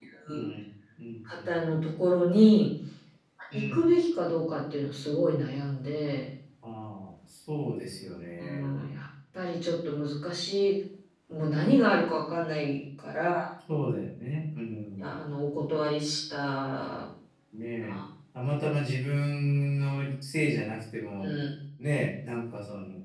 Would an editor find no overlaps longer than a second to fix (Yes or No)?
Yes